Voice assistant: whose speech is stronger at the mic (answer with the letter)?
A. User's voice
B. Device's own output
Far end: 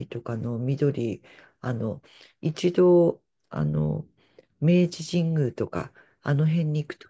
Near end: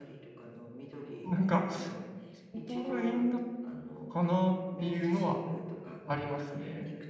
A